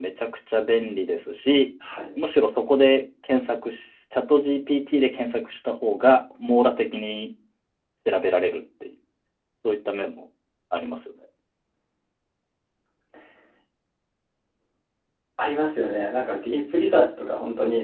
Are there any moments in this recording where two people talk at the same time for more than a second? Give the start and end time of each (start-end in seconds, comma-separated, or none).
none